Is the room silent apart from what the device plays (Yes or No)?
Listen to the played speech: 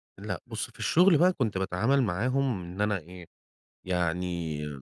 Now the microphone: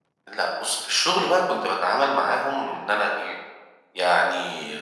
Yes